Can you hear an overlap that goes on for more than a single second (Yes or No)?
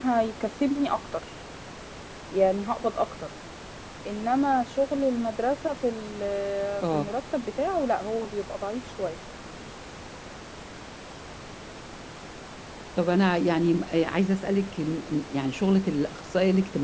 No